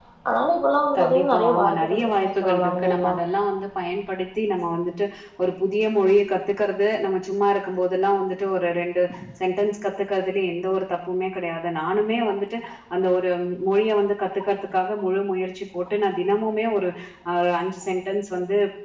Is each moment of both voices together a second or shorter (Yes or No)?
No